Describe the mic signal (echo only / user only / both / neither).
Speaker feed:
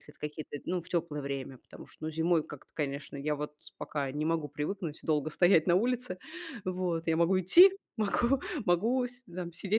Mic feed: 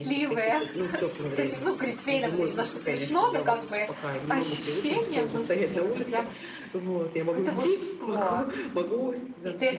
both